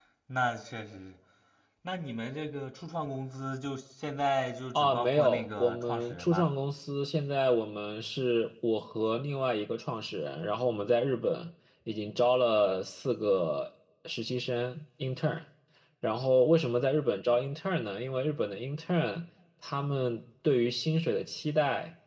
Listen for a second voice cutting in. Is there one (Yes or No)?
Yes